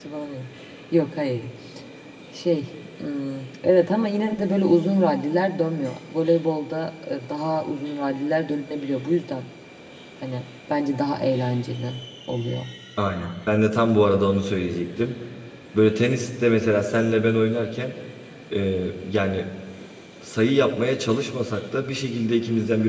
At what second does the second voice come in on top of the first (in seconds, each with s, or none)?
none